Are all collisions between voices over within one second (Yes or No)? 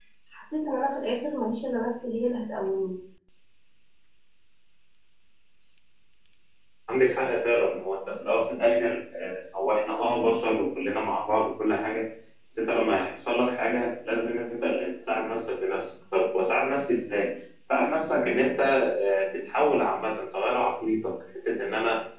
Yes